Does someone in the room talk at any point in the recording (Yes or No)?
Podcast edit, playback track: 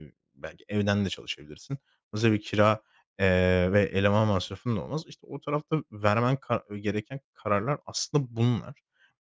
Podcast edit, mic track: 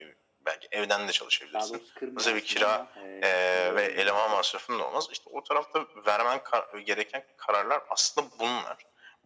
Yes